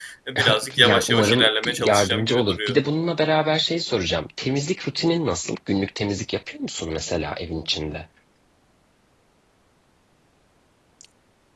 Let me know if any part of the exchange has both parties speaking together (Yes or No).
Yes